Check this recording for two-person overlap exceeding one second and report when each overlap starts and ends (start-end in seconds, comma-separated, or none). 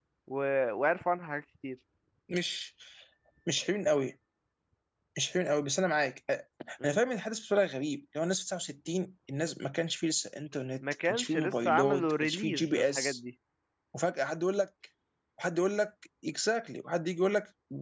10.8-13.2